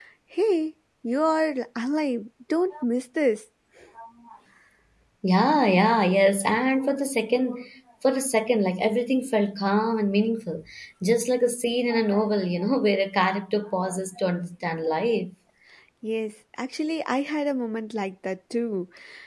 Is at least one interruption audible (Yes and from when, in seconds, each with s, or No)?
No